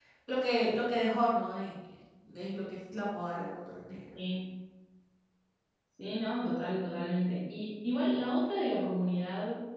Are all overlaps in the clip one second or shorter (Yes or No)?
Yes